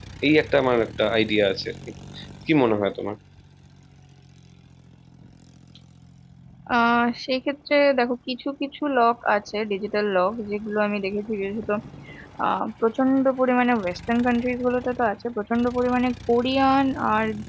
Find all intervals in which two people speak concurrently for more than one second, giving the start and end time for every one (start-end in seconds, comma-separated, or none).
none